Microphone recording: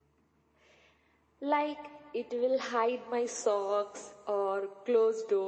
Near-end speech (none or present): none